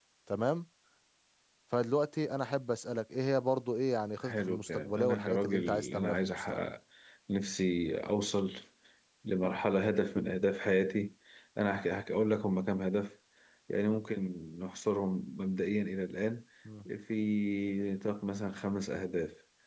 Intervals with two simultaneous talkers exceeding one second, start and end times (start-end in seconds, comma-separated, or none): 4.2-6.4